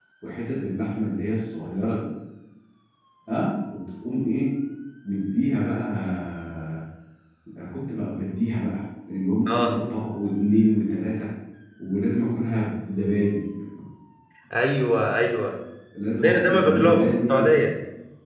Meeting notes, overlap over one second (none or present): present